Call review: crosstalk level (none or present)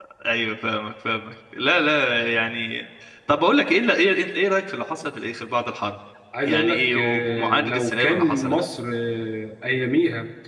present